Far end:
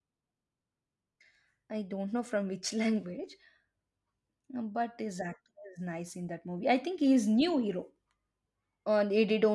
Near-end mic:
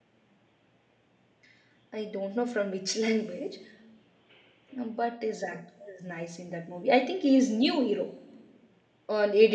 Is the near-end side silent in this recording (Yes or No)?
Yes